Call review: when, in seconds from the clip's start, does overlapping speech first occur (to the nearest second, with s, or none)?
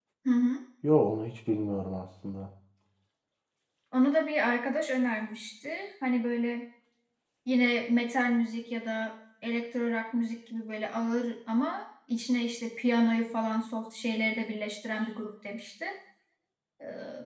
none